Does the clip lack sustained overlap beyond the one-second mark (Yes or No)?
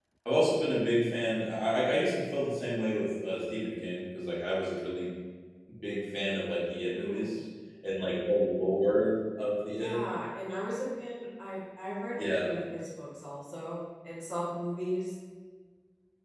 Yes